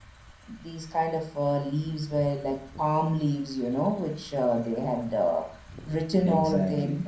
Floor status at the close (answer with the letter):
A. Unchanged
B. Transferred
A